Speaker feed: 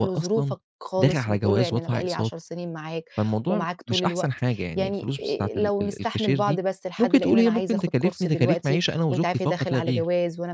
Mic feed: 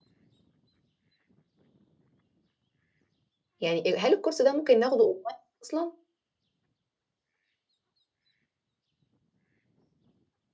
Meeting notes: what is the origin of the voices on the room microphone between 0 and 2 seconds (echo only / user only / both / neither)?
neither